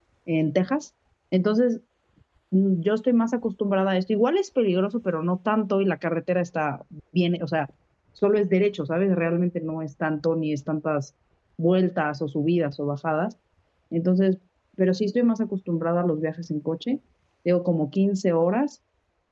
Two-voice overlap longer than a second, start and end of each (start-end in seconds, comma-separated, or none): none